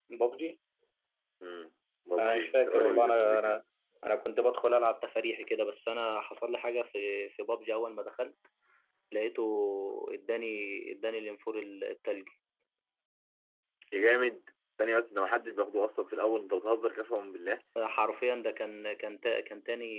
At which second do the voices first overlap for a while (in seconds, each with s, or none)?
2.2 s